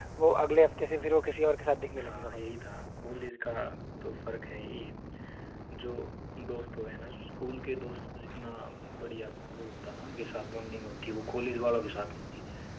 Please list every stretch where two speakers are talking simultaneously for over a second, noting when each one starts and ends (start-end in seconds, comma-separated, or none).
none